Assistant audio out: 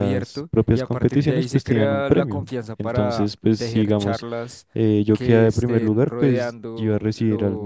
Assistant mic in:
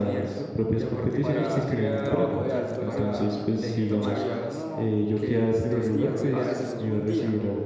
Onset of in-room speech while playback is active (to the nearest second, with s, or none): 1 s